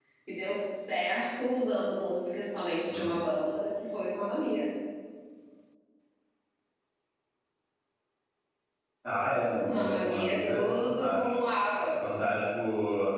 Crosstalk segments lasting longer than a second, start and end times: 9.6-11.3

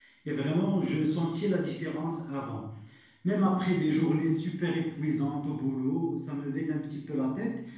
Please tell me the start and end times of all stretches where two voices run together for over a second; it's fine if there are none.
none

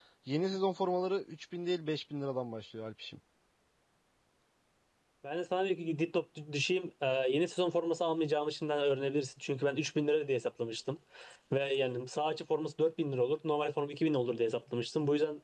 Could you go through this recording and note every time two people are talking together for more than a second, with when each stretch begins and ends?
none

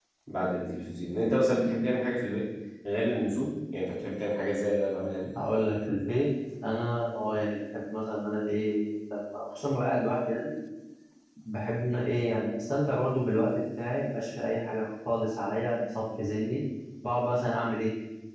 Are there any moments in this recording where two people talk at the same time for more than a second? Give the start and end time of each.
none

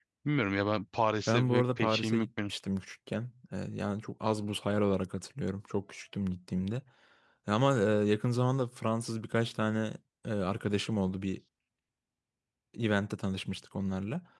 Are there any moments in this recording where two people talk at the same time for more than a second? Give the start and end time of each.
1.3-2.5

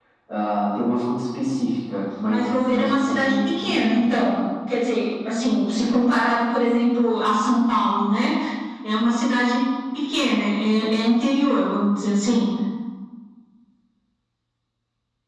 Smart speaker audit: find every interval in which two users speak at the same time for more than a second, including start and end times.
2.3-4.1

